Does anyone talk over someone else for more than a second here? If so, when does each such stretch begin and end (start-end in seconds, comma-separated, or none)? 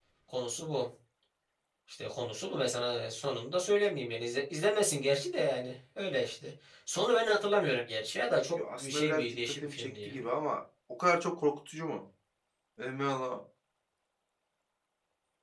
8.6-10.2